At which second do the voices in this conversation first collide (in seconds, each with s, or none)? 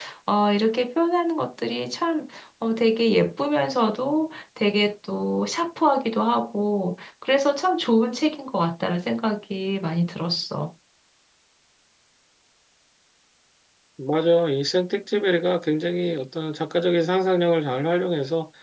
none